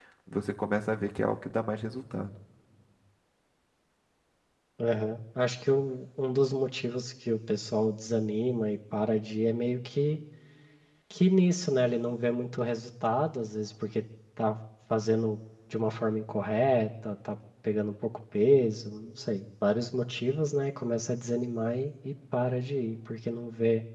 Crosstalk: none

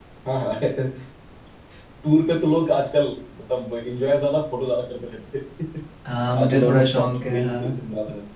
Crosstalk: present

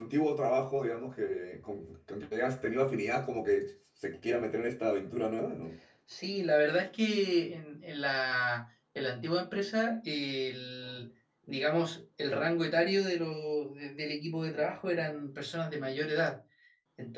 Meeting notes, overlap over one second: none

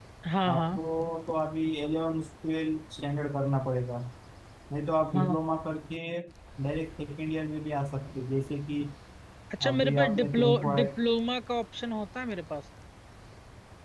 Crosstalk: present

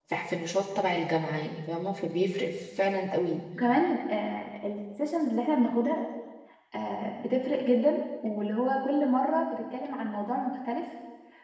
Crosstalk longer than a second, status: none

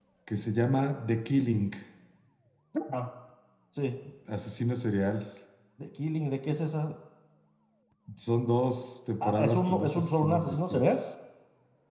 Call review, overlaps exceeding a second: present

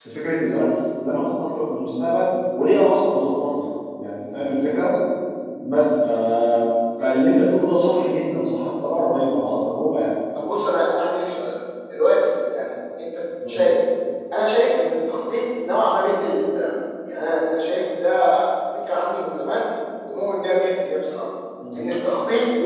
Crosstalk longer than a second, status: none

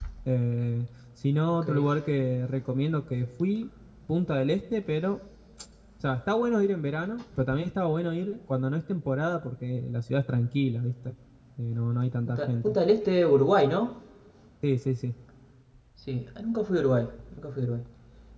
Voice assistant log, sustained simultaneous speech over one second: none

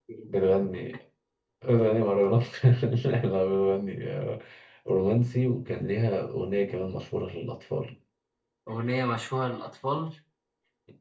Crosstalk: none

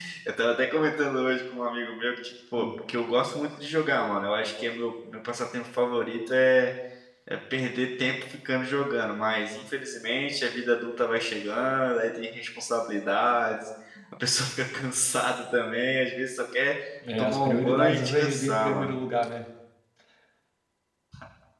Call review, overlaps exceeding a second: present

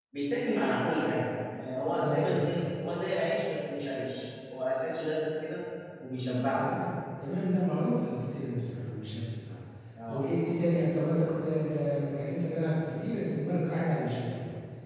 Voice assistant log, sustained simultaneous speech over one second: none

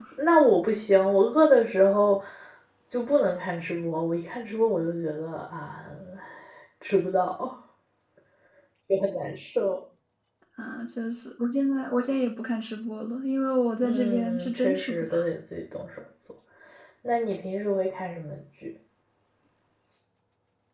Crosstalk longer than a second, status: present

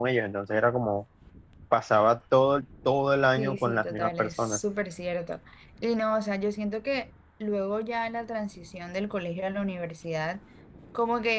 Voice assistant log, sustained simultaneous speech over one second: present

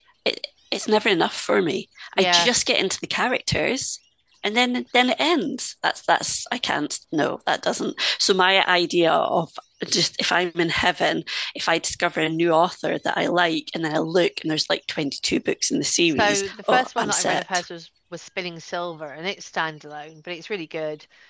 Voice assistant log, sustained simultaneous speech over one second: present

